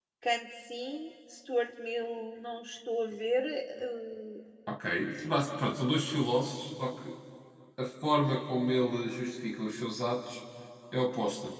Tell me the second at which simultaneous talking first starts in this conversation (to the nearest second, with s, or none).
none